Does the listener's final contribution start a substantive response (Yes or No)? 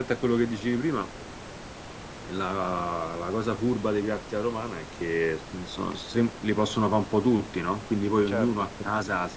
No